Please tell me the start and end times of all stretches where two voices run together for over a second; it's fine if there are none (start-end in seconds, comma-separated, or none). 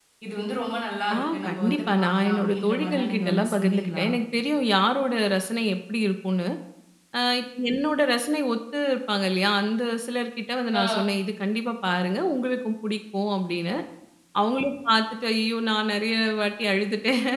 1.1-4.0